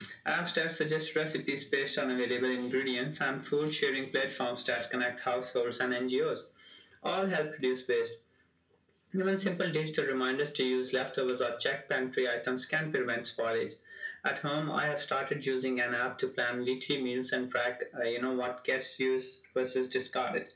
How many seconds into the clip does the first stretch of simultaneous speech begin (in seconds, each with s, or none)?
none